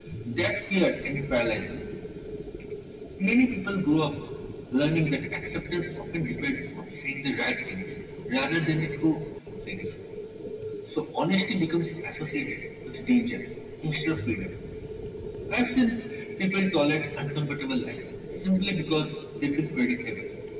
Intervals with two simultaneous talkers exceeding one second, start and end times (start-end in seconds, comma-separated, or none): none